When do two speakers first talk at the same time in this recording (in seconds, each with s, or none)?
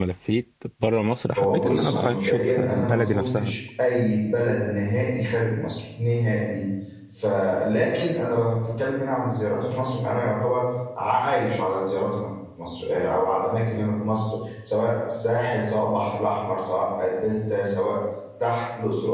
1.4 s